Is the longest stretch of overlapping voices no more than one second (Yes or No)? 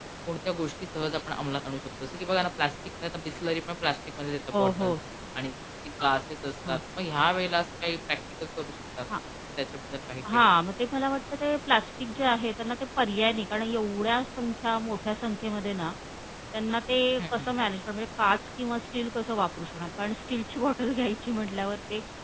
Yes